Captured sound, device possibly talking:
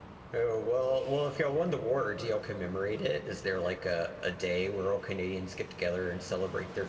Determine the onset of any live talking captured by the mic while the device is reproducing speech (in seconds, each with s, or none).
0.3 s